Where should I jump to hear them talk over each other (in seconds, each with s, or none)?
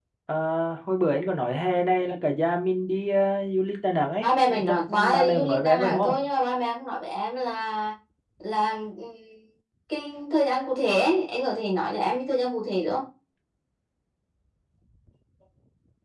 4.7 s